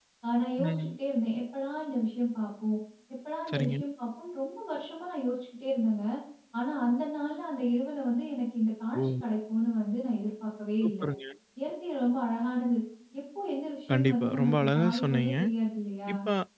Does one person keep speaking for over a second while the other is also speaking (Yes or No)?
Yes